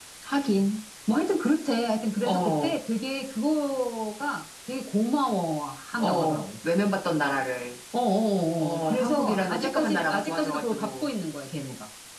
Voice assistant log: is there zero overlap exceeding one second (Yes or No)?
No